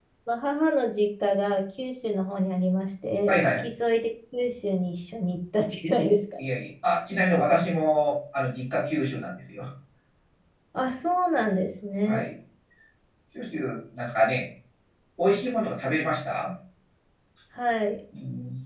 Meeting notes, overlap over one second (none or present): none